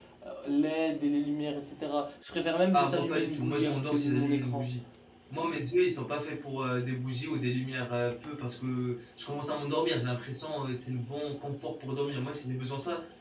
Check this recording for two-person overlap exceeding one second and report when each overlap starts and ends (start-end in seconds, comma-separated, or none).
2.7-4.6